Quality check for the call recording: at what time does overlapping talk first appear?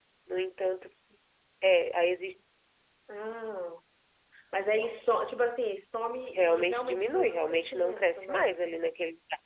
6.6 s

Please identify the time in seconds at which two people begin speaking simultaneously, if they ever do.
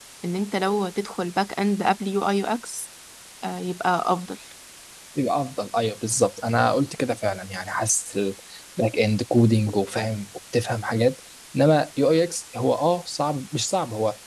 none

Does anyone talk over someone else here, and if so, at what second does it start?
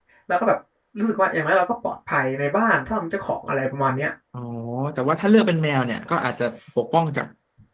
none

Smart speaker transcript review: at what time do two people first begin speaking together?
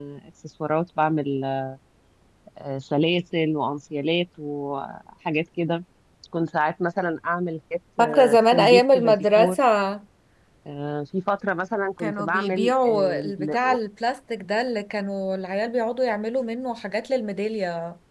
8.0 s

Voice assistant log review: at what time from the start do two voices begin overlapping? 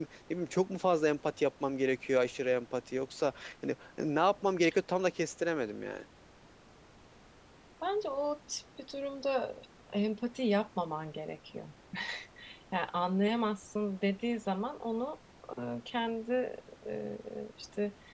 none

